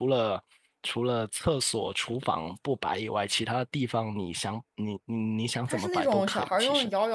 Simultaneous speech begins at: 5.7 s

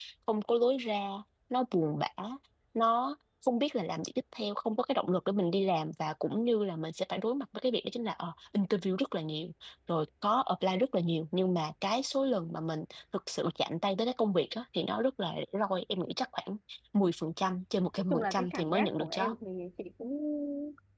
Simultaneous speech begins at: 18.1 s

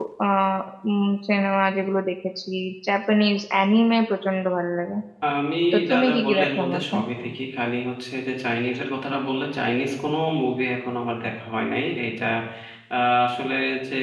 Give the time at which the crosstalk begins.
5.7 s

